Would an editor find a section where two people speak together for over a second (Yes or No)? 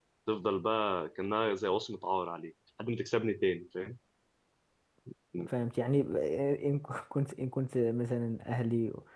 No